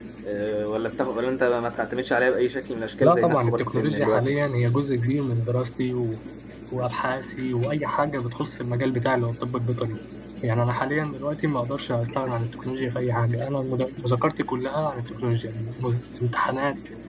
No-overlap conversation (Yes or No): No